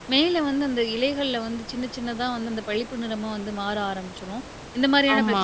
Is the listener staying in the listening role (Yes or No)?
Yes